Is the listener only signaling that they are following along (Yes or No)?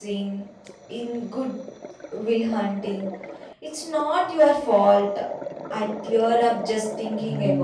No